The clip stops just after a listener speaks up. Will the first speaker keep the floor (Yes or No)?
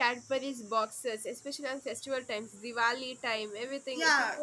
No